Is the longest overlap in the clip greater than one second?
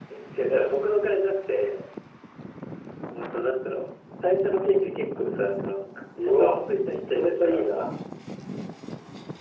Yes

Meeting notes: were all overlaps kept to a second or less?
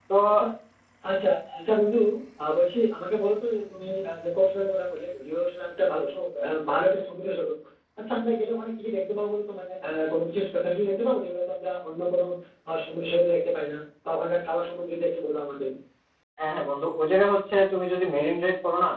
Yes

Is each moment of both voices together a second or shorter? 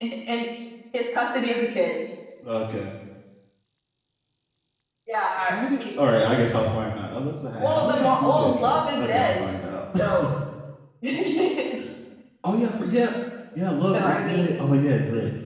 No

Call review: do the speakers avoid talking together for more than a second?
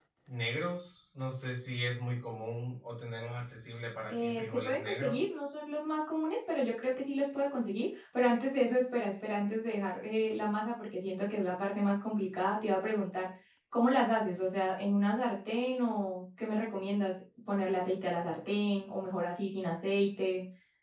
No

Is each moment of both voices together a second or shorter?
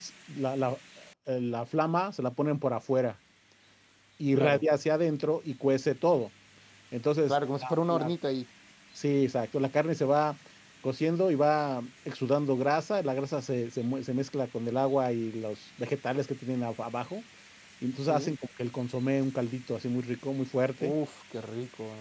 Yes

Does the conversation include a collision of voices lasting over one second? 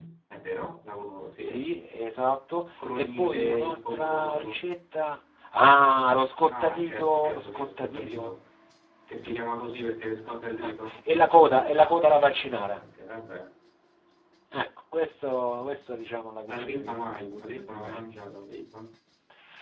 Yes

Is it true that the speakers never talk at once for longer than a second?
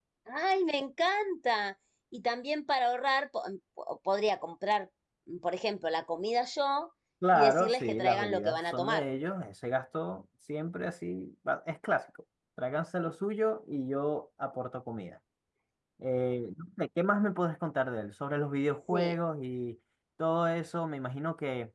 No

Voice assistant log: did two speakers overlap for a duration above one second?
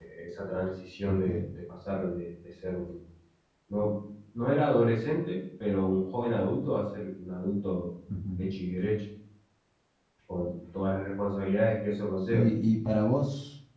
No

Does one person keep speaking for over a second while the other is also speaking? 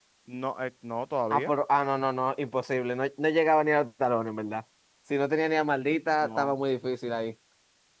No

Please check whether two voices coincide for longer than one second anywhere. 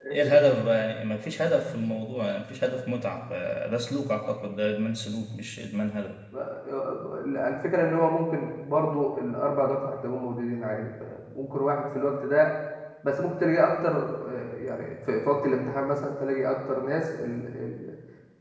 No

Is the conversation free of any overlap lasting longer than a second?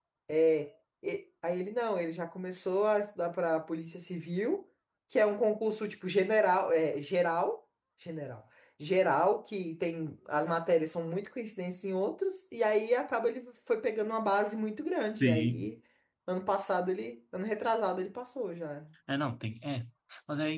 Yes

